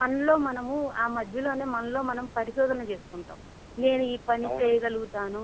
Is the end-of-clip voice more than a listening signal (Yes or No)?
No